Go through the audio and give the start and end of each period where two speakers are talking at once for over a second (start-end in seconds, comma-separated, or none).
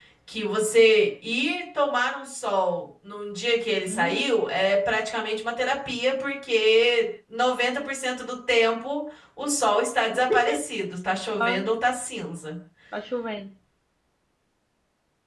none